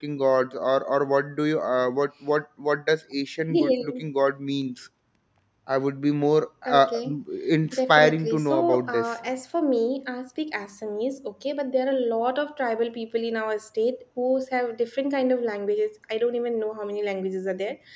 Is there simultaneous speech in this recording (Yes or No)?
Yes